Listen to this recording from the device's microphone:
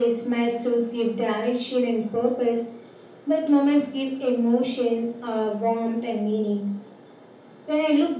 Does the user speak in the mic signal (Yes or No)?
No